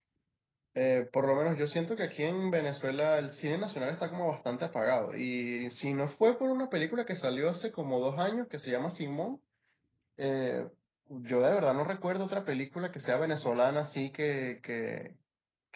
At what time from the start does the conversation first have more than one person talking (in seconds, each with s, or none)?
none